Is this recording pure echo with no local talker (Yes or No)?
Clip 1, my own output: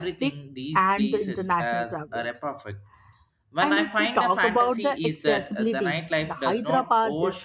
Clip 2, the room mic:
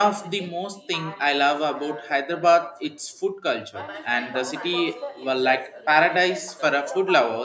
No